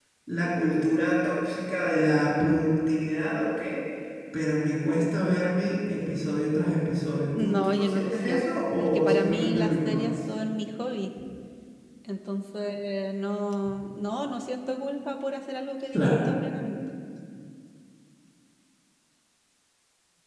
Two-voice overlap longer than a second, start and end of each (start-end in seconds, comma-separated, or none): 7.4-10.1